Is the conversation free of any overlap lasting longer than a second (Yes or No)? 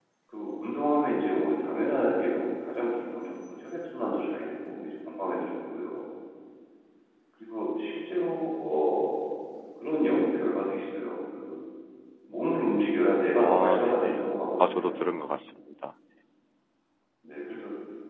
No